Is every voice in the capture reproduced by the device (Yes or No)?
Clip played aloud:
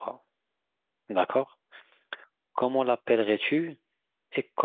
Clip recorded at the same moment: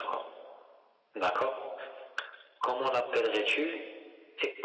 Yes